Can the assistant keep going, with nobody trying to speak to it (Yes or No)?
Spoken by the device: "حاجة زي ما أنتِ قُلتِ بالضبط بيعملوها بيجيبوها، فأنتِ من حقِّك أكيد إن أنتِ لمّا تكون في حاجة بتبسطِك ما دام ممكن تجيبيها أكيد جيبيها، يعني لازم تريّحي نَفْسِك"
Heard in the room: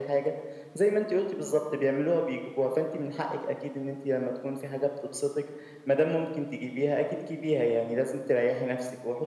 Yes